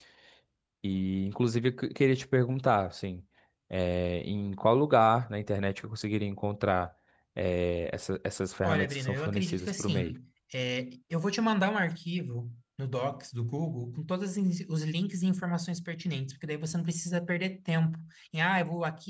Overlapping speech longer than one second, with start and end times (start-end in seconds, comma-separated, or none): 8.6-10.1